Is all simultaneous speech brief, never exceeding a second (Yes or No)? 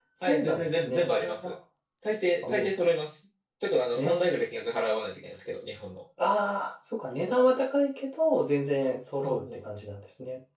No